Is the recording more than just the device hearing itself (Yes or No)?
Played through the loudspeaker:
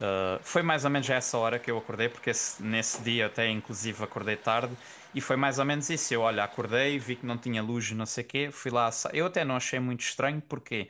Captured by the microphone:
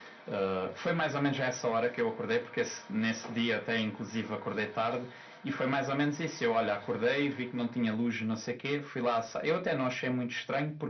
No